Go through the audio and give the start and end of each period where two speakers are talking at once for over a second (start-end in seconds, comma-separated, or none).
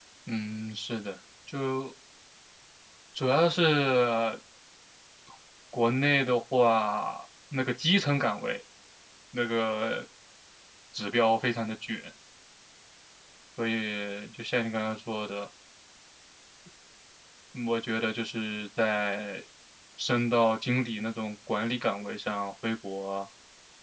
none